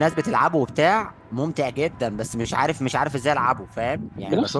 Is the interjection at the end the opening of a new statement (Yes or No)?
Yes